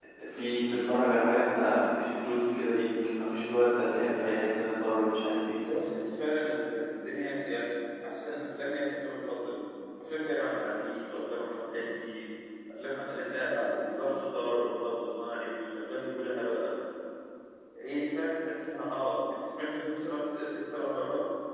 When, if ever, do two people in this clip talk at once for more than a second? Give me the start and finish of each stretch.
none

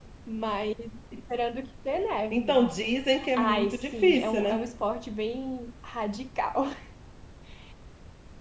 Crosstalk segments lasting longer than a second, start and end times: 3.4-4.6

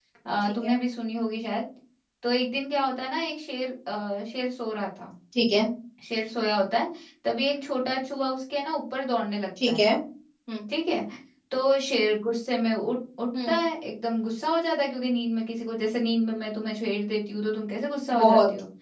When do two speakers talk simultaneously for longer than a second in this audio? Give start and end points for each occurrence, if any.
none

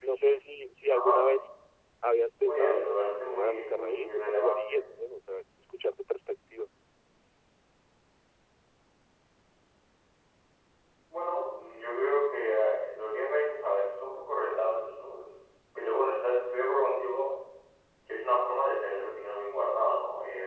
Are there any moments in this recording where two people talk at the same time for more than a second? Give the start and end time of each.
2.5-4.8

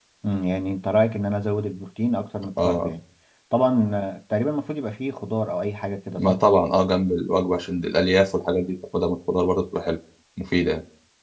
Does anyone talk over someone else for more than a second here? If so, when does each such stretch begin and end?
none

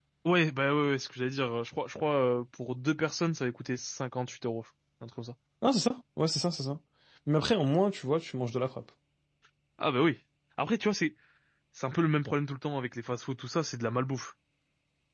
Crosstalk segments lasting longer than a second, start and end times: none

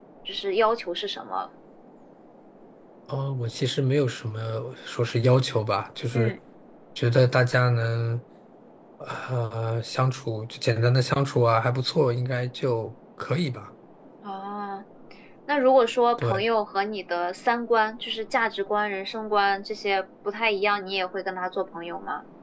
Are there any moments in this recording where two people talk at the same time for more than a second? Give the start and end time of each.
none

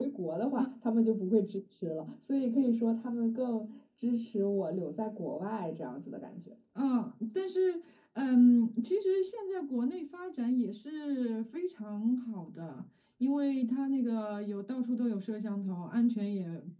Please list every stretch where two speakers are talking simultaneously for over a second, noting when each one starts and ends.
none

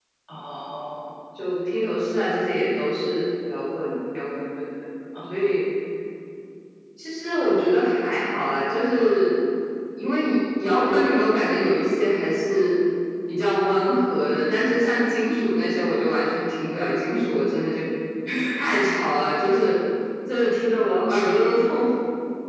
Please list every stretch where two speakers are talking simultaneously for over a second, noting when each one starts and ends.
none

